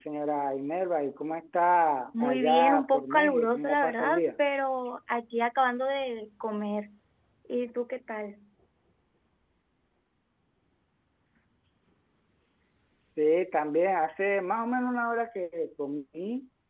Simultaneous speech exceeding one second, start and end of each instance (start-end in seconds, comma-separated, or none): 2.2-4.2